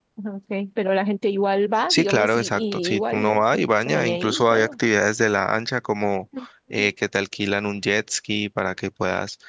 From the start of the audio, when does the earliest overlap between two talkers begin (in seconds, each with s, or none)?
1.9 s